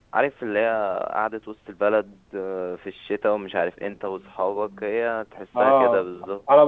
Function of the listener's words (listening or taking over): taking over